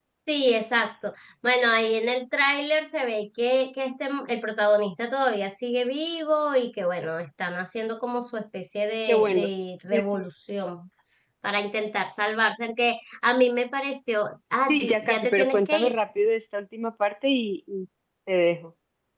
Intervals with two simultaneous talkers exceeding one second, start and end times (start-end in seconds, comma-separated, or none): 14.7-15.9